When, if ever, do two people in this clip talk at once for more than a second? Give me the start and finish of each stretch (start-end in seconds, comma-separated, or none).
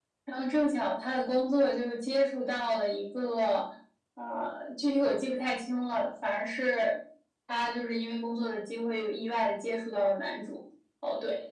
none